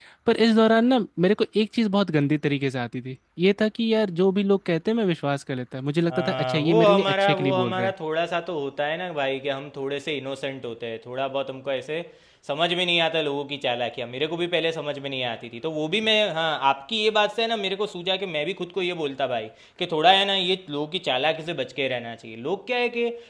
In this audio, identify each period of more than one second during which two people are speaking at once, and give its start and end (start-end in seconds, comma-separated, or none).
6.1-7.9